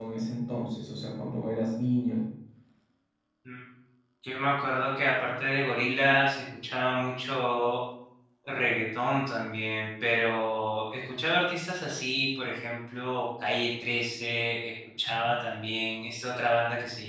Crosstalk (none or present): none